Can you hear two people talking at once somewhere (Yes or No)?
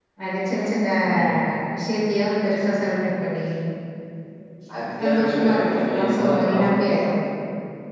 Yes